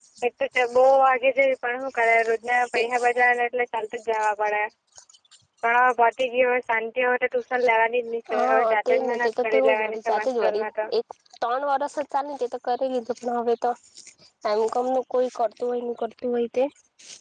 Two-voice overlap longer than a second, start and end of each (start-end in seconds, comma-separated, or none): 8.3-10.8